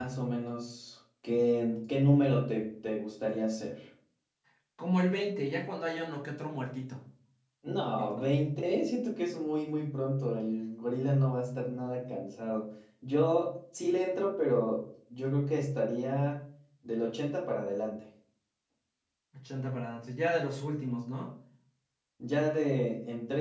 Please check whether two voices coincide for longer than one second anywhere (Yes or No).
No